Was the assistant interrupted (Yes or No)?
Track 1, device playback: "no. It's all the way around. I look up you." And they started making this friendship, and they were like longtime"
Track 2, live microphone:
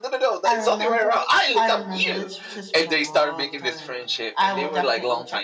Yes